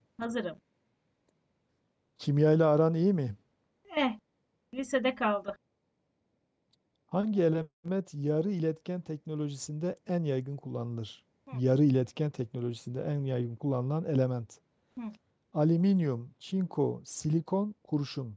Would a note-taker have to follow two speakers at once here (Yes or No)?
No